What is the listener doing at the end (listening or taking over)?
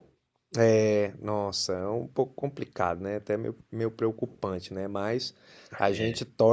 listening